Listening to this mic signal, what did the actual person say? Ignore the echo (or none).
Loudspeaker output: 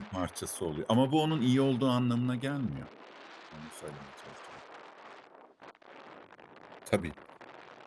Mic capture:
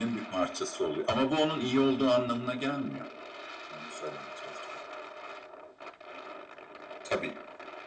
none